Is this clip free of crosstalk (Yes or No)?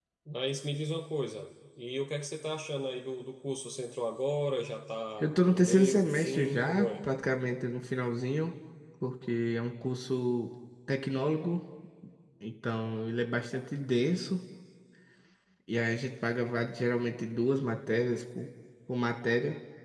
No